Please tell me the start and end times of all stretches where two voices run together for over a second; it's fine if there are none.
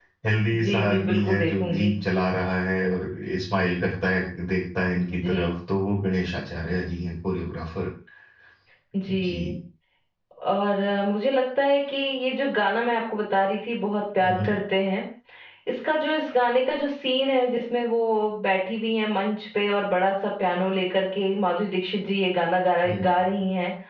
0.6-1.9

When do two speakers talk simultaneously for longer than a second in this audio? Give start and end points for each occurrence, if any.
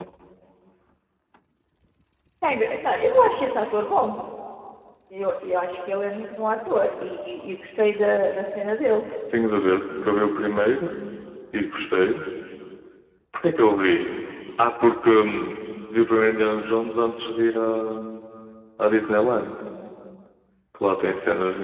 none

